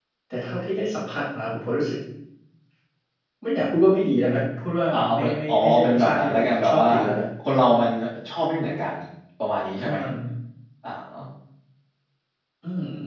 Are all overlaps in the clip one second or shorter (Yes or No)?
No